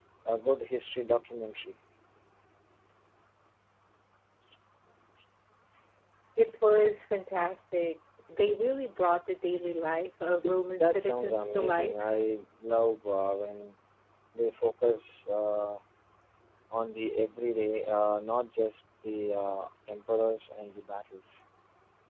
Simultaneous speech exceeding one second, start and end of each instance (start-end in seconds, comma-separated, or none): 10.7-11.9